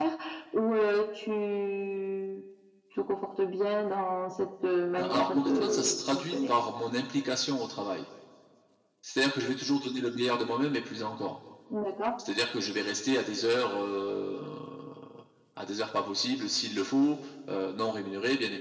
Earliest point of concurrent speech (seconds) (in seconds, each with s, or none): 4.9 s